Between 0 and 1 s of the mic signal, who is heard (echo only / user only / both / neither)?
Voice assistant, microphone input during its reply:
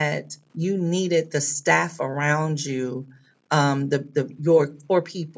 user only